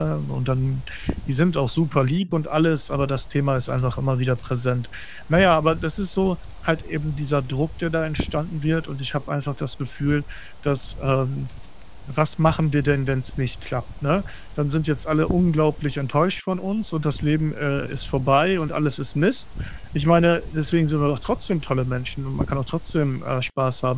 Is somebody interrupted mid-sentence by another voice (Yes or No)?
No